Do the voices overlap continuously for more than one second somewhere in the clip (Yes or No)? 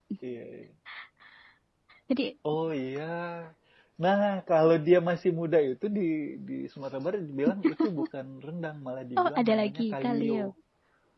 Yes